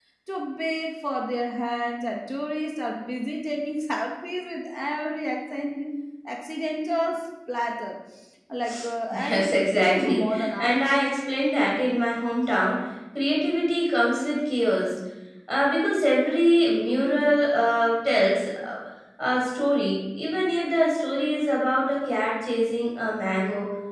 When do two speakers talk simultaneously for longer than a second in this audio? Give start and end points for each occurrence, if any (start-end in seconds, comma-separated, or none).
9.1-10.8